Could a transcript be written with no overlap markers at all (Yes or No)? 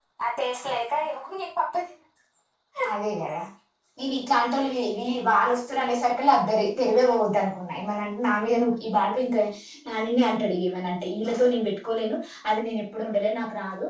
Yes